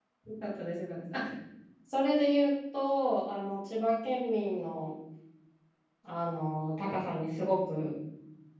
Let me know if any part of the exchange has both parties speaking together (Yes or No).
No